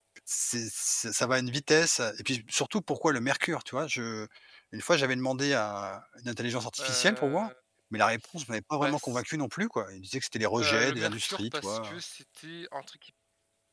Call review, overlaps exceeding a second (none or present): present